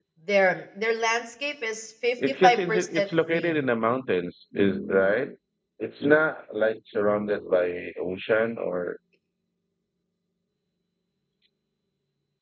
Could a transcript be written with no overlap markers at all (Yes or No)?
No